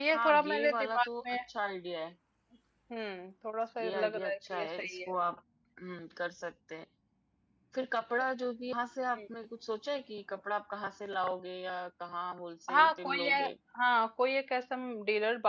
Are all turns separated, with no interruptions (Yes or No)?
No